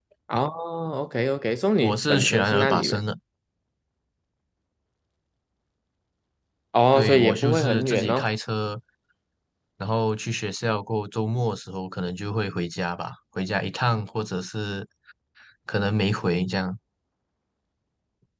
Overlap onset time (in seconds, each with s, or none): 1.8 s